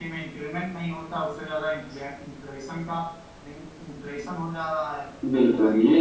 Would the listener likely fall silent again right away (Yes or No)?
No